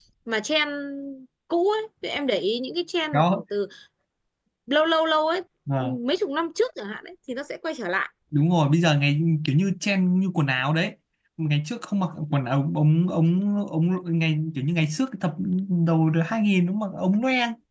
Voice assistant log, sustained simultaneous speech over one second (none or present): none